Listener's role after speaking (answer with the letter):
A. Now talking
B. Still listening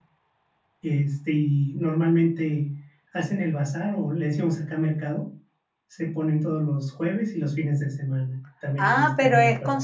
A